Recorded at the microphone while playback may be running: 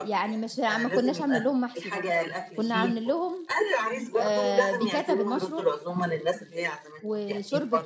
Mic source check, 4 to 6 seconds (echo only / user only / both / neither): both